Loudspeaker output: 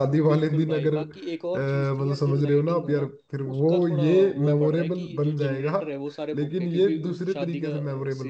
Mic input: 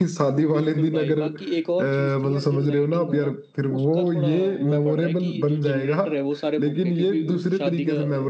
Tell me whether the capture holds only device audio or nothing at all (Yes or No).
Yes